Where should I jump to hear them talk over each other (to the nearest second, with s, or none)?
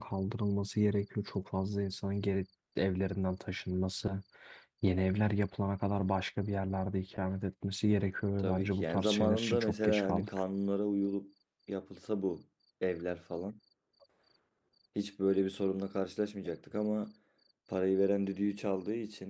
8 s